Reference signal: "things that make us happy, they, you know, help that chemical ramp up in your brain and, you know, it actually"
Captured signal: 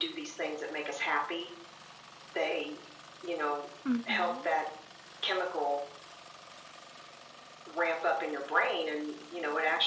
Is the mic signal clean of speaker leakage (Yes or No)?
No